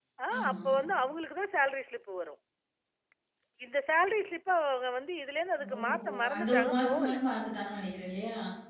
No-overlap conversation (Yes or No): No